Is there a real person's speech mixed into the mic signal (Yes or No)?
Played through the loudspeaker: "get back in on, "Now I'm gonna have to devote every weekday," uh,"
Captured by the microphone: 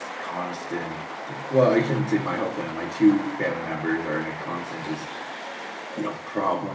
Yes